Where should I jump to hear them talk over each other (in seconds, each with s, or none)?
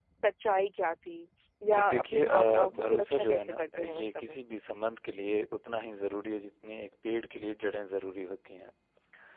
1.6 s